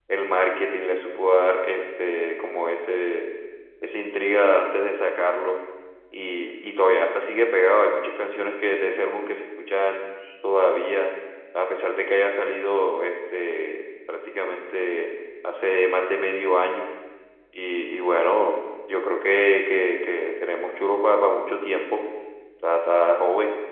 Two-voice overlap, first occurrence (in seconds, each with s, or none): none